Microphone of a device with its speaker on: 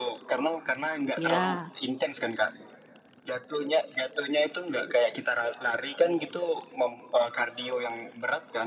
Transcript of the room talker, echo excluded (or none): Ya,